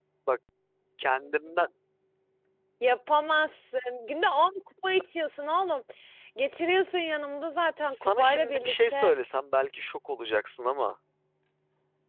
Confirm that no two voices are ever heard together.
No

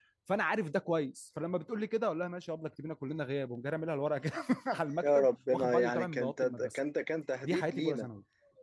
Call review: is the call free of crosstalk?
No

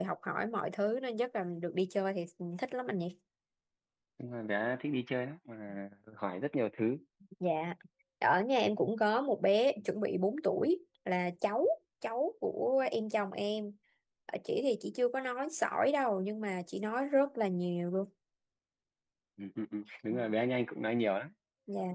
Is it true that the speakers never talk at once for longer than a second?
Yes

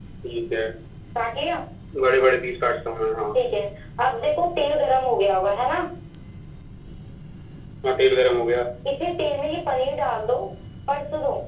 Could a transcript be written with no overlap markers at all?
Yes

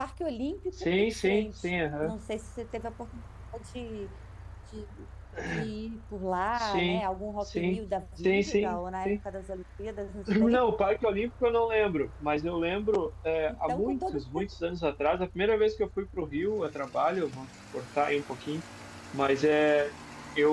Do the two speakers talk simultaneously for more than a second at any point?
Yes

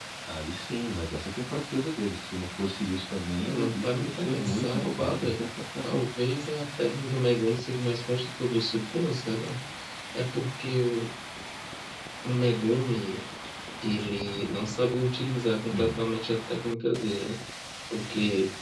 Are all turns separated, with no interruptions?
No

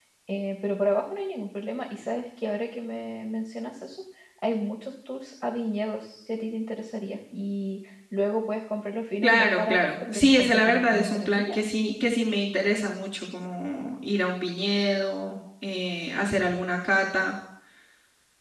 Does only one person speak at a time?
No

